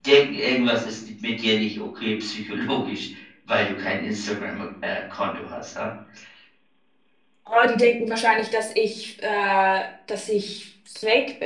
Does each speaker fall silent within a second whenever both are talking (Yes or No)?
Yes